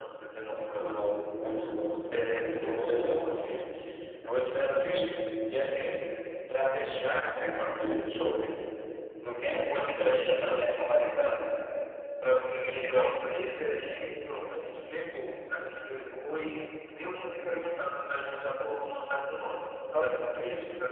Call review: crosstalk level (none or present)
present